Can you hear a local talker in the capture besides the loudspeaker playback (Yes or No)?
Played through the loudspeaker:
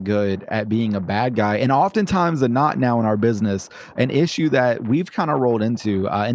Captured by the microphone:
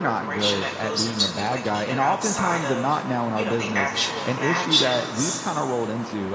Yes